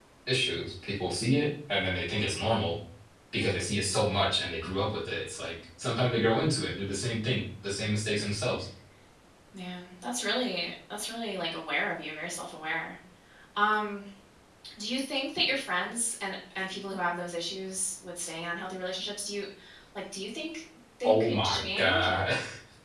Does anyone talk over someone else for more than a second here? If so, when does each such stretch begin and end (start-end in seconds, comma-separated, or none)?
21.0-22.3